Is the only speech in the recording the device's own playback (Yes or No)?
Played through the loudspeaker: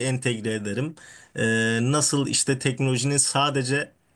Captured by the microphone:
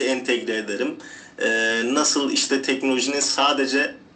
Yes